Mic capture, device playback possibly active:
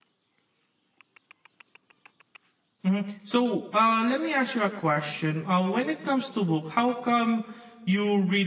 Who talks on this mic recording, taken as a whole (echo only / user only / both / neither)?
user only